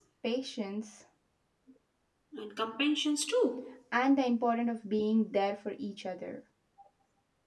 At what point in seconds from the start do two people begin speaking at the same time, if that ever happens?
none

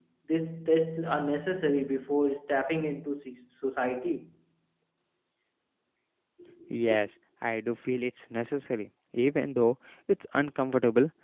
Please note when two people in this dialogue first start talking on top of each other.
none

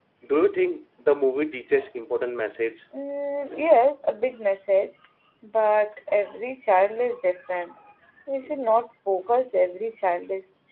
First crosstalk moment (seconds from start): none

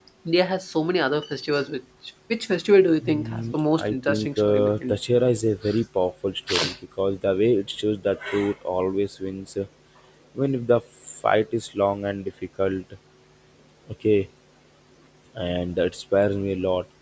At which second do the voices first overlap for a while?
3.0 s

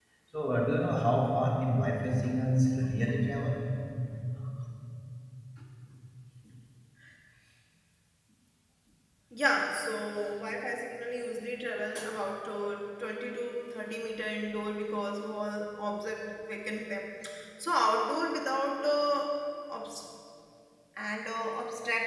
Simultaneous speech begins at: none

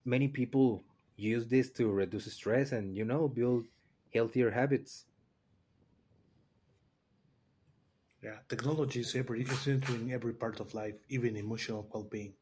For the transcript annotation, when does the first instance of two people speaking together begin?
none

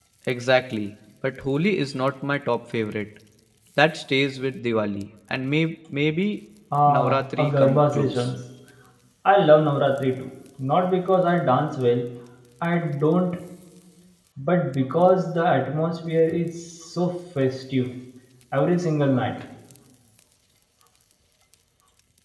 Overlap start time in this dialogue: 6.9 s

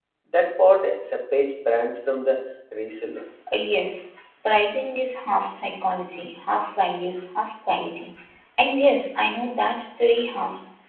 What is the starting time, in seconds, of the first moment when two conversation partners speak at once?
none

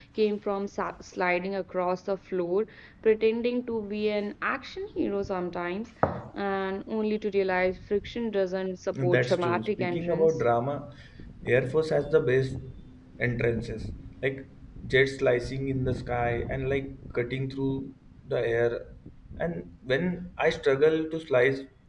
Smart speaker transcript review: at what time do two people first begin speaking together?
8.9 s

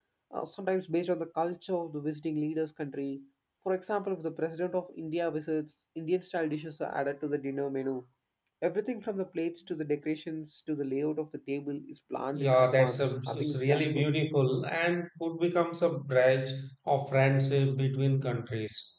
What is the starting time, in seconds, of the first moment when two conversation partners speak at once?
12.3 s

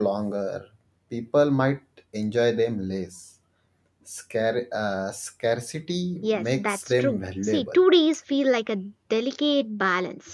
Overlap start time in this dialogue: 6.2 s

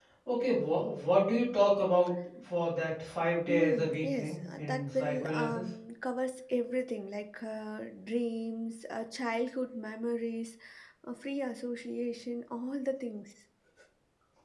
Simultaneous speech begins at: 3.5 s

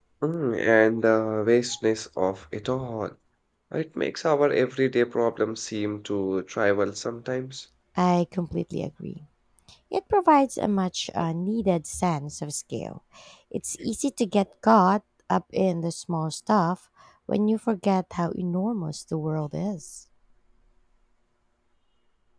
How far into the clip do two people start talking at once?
none

